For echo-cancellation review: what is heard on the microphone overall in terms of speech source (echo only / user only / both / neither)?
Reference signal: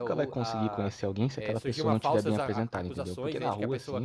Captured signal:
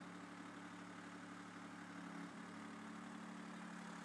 neither